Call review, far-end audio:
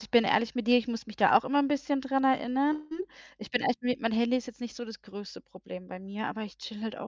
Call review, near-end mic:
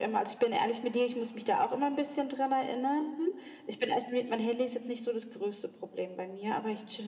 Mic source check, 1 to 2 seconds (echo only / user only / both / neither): echo only